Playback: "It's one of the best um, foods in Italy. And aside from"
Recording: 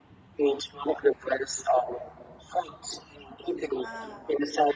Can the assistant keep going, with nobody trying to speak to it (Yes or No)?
No